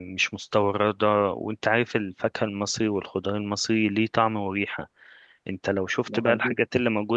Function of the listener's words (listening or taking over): listening